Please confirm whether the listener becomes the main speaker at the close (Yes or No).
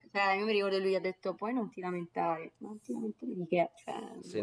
Yes